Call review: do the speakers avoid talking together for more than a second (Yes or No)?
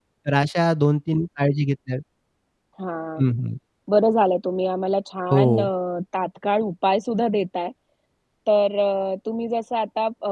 Yes